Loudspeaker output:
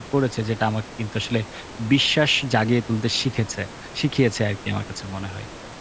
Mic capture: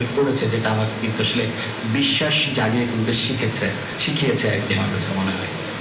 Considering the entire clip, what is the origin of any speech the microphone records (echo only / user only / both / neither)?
echo only